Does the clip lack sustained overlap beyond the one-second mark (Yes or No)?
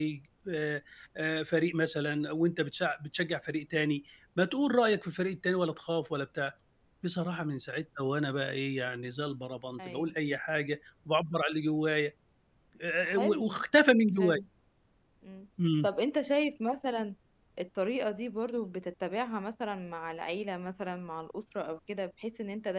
Yes